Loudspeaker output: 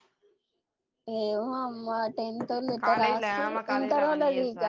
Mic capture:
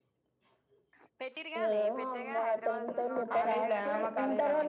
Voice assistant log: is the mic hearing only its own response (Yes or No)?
No